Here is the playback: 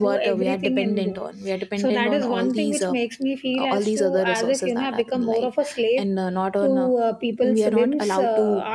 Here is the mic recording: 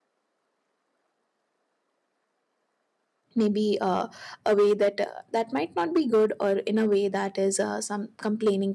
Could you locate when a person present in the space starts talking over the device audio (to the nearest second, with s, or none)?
3 s